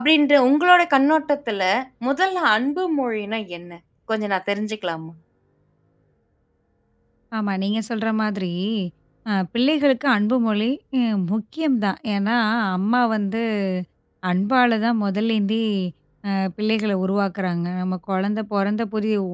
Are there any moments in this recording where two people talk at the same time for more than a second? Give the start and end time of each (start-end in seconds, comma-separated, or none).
none